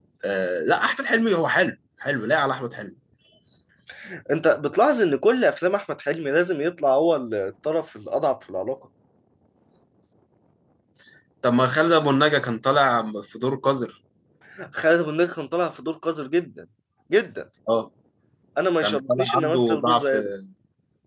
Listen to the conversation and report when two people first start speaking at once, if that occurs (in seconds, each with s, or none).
18.8 s